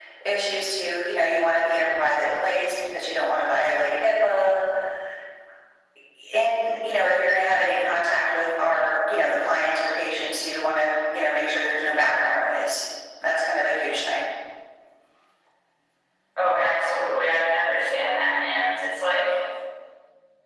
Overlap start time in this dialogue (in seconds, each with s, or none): none